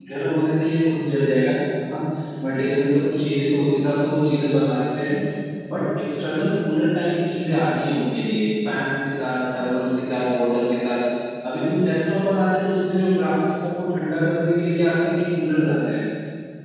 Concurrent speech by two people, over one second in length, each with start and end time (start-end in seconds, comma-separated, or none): none